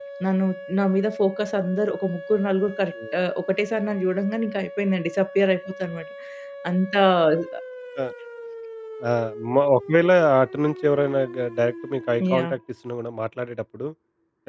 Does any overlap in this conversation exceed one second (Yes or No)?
No